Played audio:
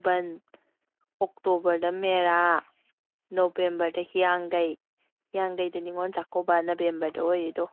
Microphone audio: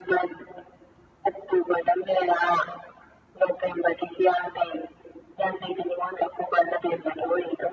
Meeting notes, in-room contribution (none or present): none